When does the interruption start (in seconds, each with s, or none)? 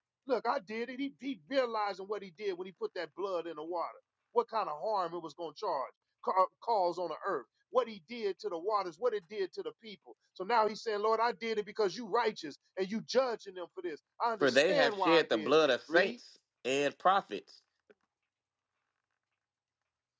14.4 s